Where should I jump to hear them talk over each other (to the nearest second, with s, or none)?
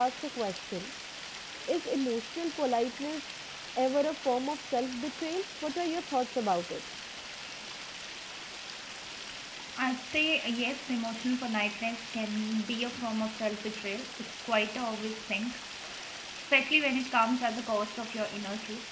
none